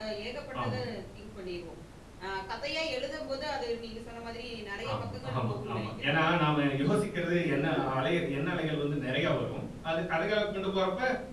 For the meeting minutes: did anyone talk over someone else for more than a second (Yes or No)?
Yes